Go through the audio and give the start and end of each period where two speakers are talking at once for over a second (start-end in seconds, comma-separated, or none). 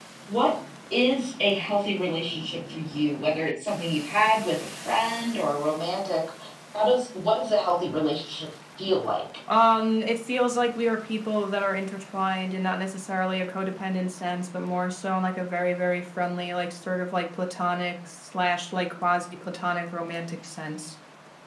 none